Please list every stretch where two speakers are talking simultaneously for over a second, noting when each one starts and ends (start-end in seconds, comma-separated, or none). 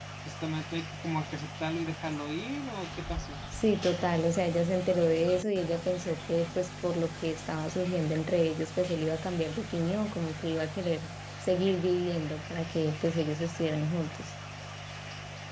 none